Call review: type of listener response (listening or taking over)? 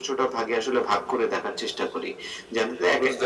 listening